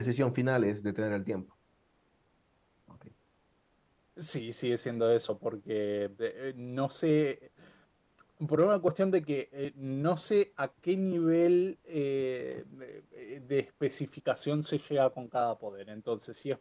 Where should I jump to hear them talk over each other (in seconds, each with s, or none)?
none